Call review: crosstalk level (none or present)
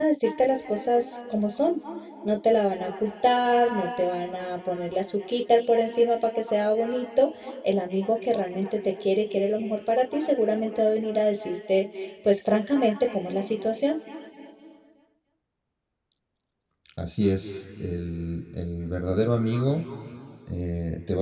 none